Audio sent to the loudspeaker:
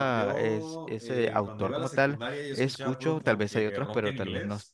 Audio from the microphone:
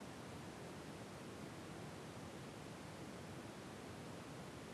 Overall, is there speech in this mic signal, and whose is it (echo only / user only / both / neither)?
neither